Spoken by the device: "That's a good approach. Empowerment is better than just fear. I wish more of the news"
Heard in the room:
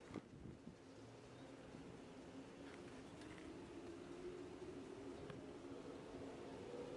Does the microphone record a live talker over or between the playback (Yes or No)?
No